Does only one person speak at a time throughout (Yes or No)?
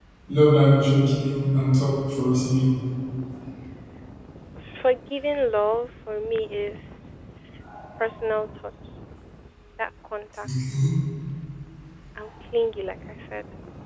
Yes